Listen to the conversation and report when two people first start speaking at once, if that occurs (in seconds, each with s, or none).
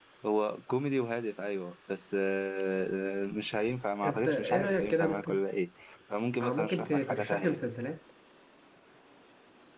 4.0 s